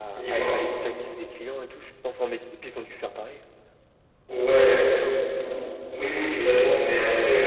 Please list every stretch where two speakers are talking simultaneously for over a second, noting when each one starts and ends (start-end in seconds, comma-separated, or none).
none